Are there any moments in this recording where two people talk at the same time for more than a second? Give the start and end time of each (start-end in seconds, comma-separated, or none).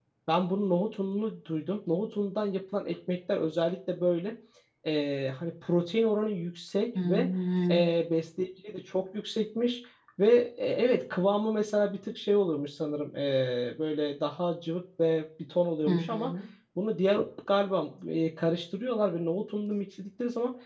none